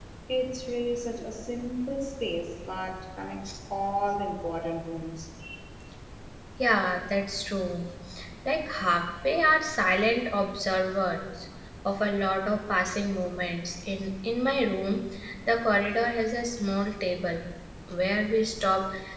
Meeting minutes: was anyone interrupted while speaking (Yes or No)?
No